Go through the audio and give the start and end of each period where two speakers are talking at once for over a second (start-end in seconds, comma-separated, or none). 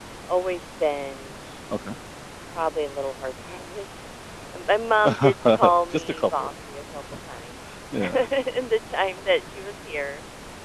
5.0-6.5